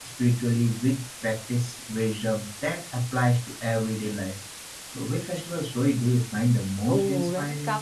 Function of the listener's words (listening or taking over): taking over